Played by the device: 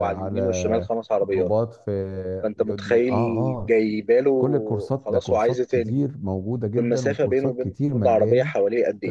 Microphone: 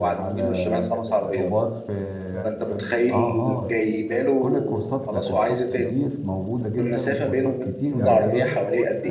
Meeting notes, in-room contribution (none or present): present